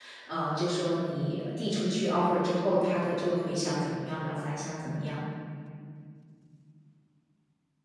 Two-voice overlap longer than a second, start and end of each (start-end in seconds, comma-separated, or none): none